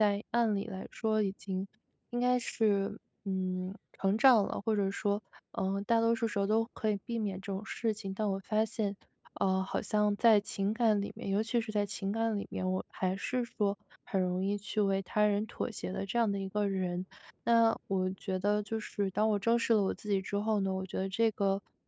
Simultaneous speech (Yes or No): No